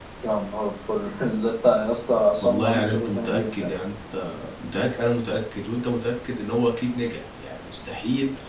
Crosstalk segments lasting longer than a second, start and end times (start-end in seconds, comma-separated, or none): 2.4-3.7